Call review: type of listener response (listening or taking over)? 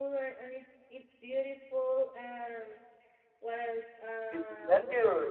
taking over